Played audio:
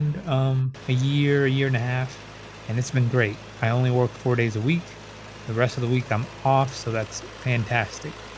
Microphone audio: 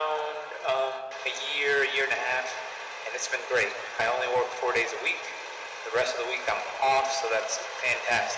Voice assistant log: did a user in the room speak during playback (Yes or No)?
No